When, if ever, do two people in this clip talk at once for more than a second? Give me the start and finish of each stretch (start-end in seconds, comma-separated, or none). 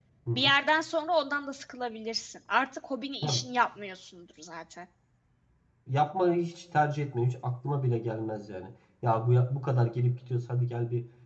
none